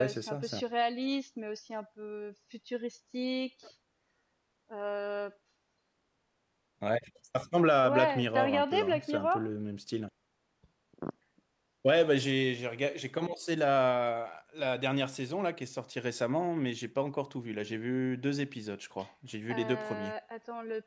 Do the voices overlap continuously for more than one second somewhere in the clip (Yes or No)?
Yes